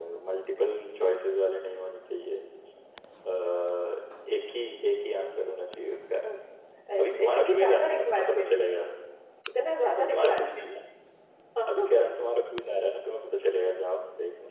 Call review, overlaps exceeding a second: present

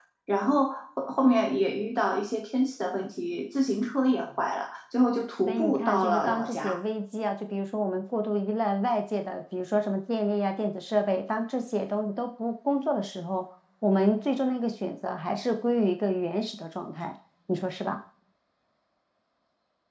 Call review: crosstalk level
present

